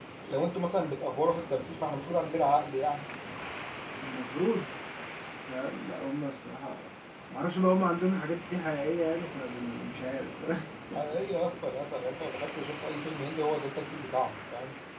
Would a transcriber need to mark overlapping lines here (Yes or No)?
No